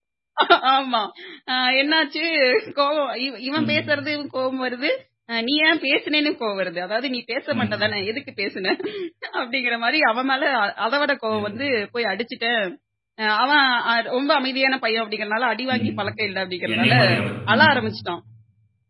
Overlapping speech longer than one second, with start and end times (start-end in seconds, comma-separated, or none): none